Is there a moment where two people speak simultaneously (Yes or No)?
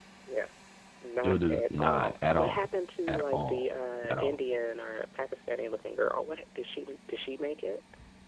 Yes